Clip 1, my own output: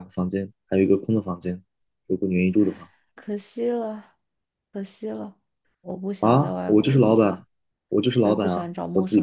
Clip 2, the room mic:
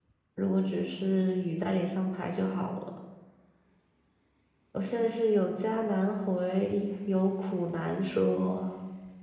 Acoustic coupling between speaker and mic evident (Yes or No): No